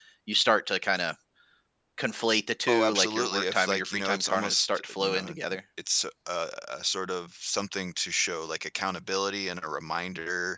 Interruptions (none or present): present